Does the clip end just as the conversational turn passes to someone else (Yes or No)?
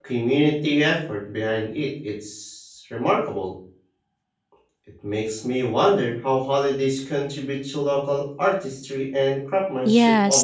Yes